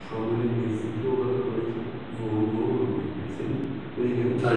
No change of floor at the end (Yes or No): Yes